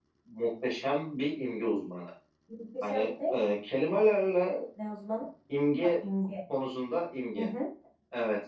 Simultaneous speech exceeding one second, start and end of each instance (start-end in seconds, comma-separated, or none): none